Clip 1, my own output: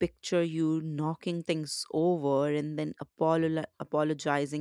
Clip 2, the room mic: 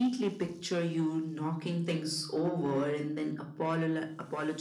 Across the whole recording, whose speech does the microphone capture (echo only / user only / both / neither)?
echo only